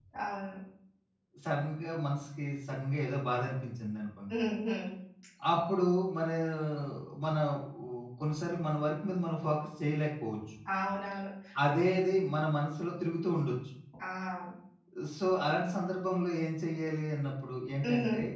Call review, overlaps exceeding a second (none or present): none